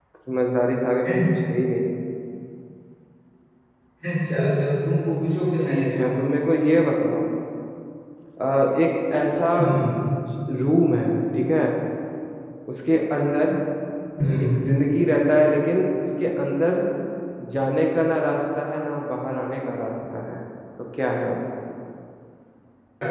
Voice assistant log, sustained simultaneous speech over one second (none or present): none